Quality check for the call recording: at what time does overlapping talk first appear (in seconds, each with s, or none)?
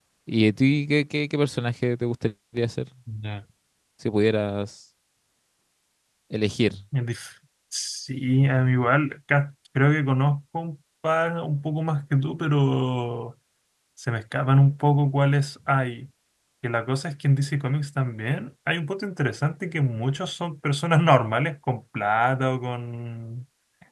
none